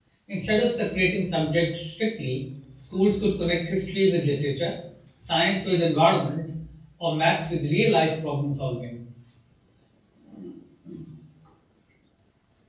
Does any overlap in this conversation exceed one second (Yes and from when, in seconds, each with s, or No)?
No